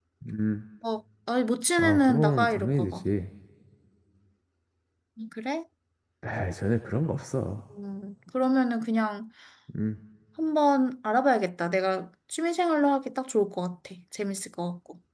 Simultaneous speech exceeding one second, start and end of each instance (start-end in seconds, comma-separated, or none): 1.8-3.0